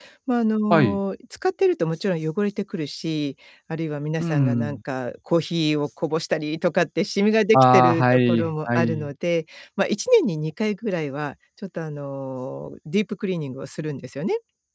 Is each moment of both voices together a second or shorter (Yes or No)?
No